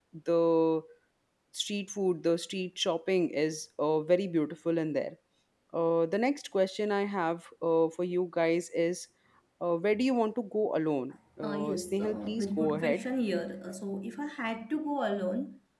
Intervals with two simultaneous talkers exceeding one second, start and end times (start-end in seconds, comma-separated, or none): 11.4-13.0